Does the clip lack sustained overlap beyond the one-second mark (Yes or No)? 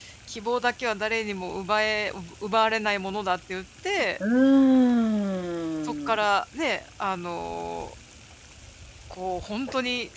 Yes